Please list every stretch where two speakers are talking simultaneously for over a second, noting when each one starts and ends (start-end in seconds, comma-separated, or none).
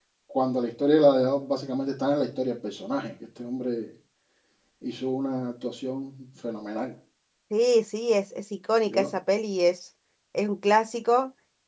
none